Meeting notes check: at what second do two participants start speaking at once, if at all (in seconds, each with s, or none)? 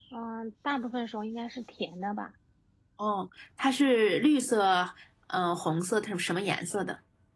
none